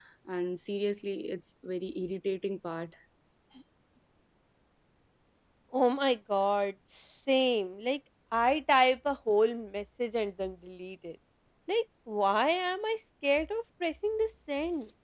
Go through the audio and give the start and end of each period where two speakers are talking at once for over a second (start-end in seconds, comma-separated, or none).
none